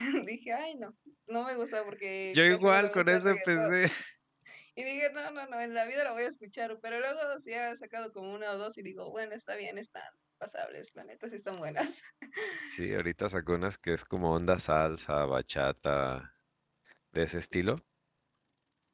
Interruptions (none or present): present